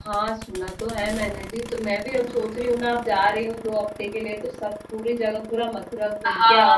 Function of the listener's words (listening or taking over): taking over